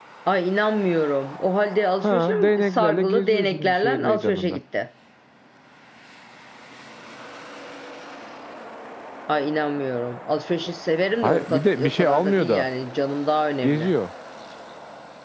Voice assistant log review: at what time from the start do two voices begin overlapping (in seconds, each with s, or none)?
2.0 s